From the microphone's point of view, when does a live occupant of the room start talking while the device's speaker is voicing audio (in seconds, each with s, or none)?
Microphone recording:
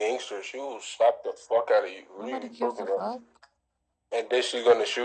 2.1 s